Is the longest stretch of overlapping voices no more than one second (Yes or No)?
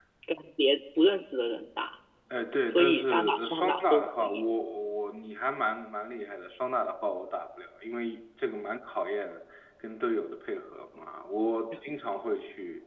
No